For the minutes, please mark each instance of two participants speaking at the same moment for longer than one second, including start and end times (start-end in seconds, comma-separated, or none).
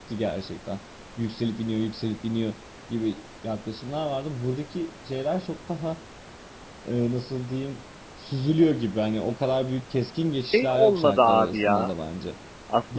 10.5-11.9